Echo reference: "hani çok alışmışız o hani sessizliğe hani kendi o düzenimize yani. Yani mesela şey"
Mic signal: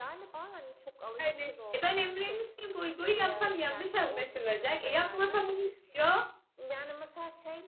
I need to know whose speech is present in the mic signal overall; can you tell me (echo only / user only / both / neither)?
both